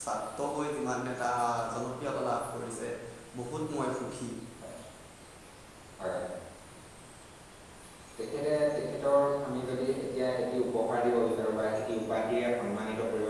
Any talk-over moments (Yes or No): No